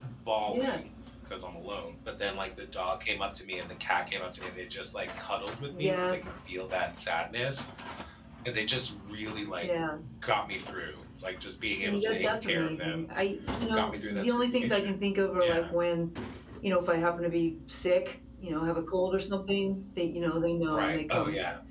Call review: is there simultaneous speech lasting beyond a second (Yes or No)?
Yes